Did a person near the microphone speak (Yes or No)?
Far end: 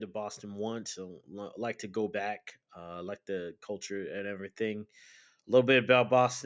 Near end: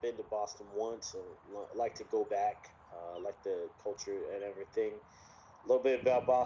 No